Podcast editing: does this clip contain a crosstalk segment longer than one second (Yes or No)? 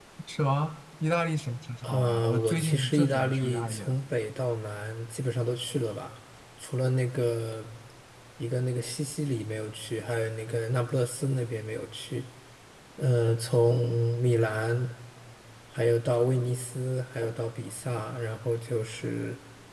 Yes